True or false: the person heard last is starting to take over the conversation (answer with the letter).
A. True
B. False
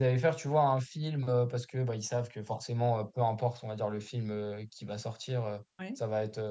B